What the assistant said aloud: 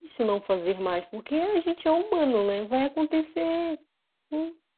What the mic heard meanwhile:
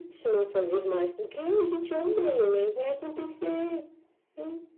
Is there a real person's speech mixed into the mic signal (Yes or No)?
No